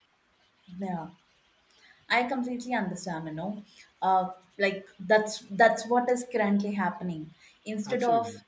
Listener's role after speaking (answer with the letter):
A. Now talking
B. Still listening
B